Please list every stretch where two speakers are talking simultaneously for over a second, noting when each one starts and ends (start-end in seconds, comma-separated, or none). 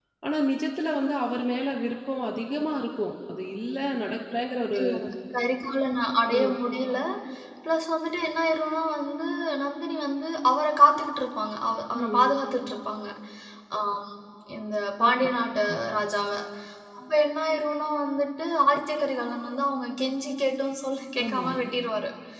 none